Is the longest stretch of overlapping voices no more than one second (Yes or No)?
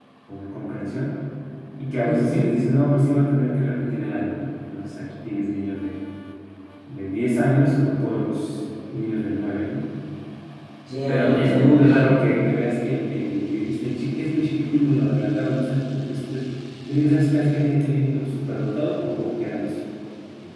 No